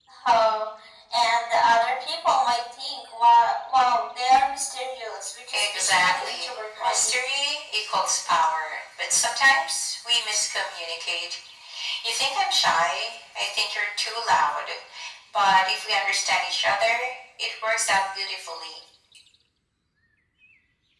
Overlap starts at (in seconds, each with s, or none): 5.5 s